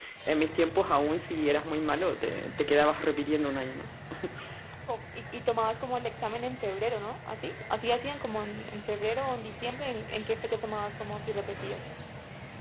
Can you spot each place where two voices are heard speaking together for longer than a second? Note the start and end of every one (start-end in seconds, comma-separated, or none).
none